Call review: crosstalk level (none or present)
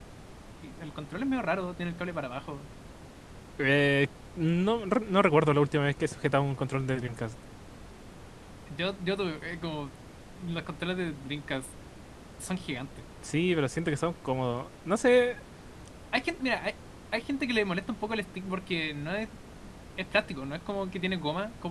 none